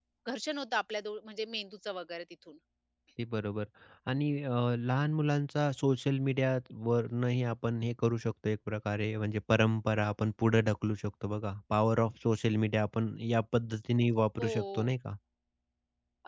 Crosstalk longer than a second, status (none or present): none